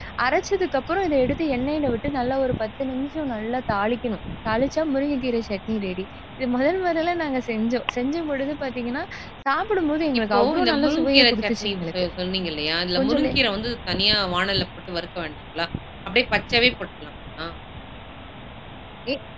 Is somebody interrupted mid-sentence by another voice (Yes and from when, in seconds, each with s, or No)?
Yes, from 10.2 s